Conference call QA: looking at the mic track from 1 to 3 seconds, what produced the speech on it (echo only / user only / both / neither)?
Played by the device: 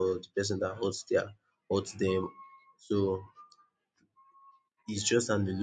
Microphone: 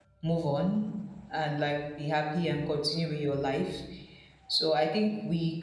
user only